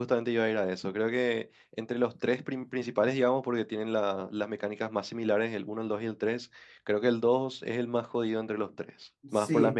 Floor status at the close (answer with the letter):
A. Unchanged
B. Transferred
B